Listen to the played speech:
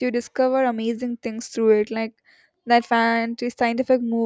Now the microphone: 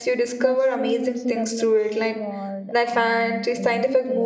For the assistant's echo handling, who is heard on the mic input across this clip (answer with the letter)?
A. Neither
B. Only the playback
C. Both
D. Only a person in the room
C